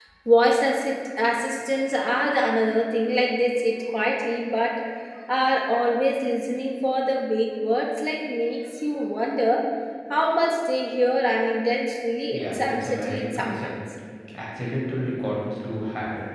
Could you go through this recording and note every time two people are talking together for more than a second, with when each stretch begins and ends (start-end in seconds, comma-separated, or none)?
12.3-13.6